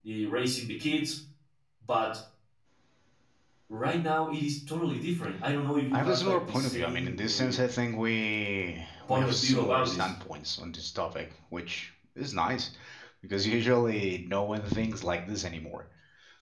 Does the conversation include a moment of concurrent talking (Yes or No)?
Yes